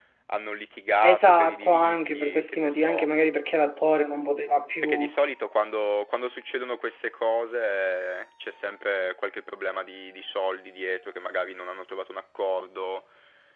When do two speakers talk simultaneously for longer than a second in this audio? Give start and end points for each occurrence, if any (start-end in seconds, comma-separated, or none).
1.0-3.1